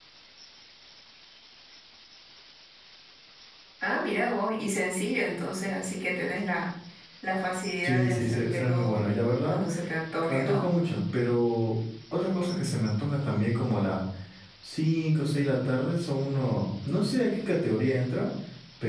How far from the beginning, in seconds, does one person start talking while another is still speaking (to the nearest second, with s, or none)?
8 s